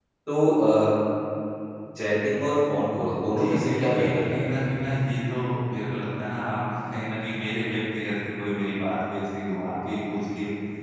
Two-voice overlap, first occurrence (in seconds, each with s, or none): 3.4 s